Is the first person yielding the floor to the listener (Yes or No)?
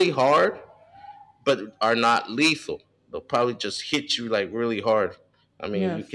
No